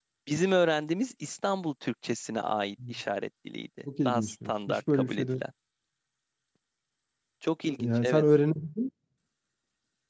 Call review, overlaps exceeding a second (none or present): present